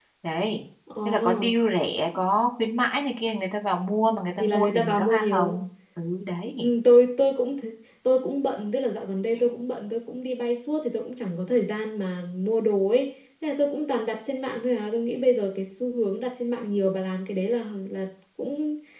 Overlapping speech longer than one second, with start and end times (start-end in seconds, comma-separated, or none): 4.4-5.6